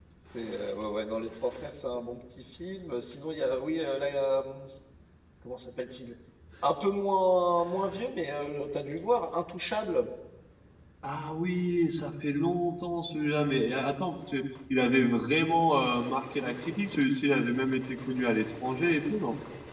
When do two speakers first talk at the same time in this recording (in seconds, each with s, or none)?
none